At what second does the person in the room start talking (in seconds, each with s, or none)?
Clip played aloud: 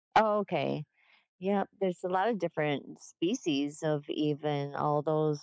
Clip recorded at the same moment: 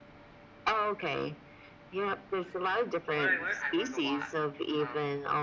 2.4 s